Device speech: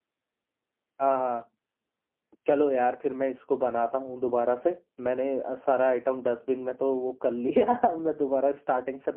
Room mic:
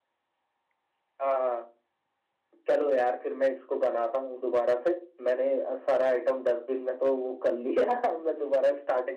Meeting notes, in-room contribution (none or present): none